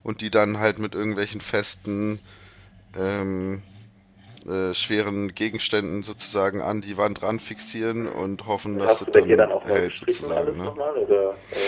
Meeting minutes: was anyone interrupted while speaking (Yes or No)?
Yes